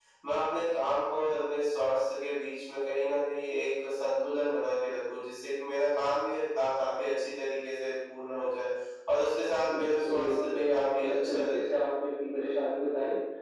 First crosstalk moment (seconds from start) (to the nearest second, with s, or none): 10 s